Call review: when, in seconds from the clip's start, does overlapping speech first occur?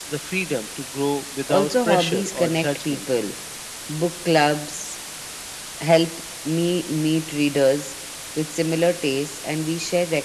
1 s

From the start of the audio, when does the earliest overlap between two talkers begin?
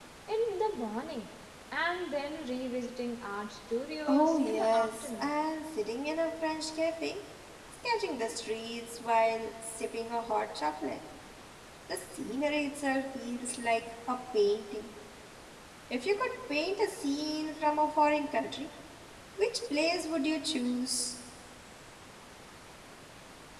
4 s

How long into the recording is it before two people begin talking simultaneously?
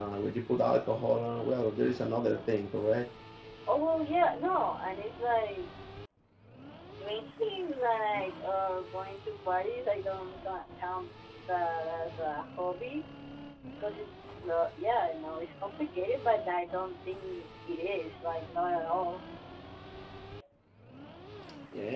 none

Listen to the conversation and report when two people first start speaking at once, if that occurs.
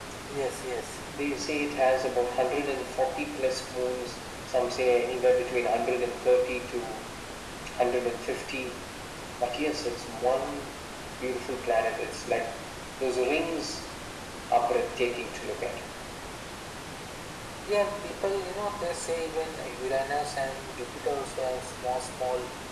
none

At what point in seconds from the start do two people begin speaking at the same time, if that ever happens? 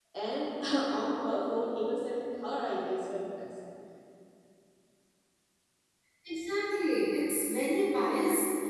none

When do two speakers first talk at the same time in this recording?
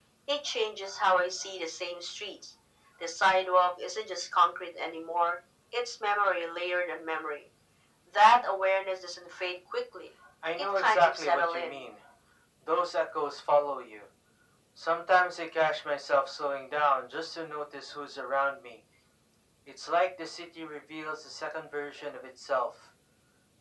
11 s

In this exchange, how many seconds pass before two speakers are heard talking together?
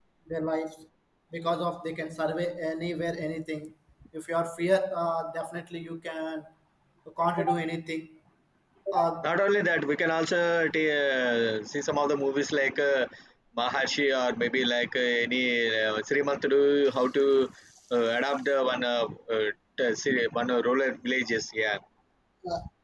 none

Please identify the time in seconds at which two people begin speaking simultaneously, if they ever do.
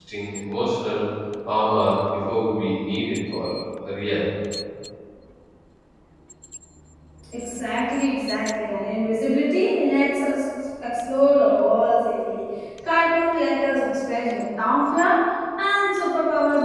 none

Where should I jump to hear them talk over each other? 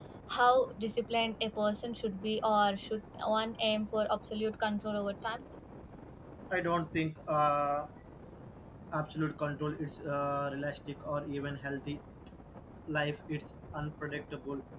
none

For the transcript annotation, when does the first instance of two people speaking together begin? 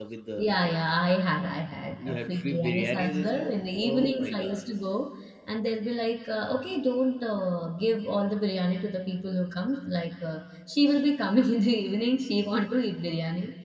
2 s

